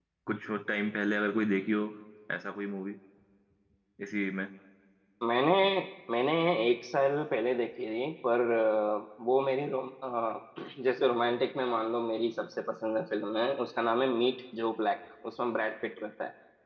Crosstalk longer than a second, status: none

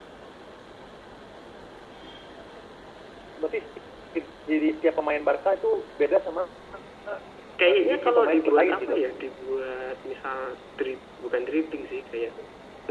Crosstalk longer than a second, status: present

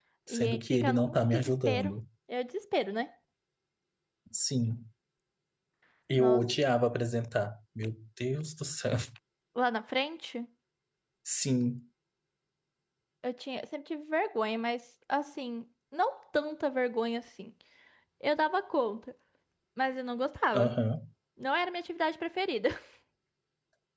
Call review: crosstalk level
present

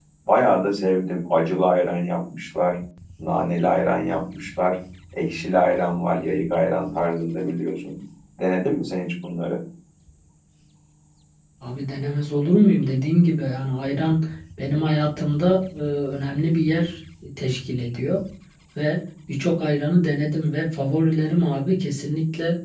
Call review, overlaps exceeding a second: none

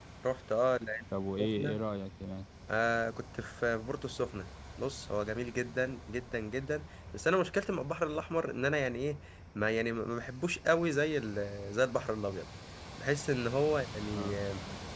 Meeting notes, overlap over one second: none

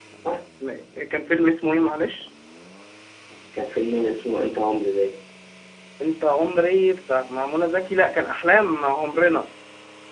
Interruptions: none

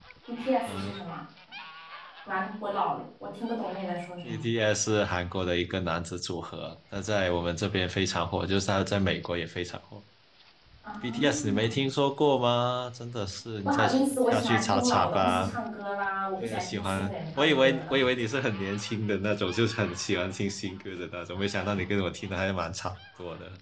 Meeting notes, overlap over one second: present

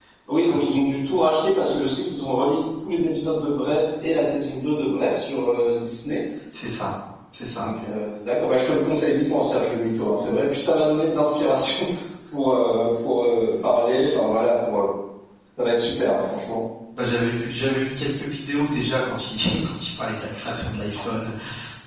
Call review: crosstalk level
none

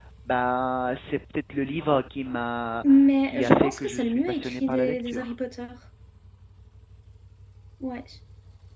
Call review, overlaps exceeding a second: present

